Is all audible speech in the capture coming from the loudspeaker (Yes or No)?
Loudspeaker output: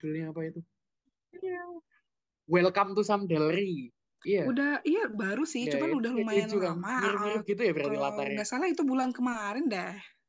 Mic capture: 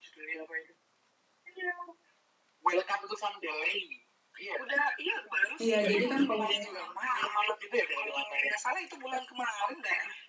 No